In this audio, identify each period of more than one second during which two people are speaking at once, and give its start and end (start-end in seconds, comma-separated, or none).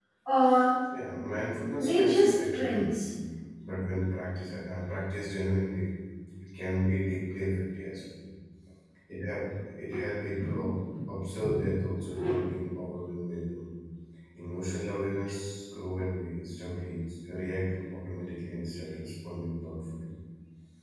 1.8-3.0